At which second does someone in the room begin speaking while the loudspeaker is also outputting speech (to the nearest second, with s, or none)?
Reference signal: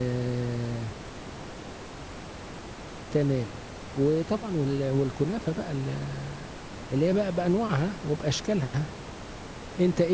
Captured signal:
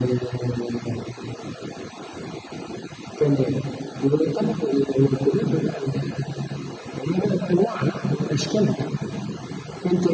none